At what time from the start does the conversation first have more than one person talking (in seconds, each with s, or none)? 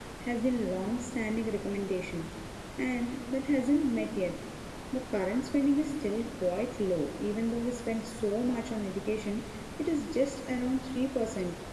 none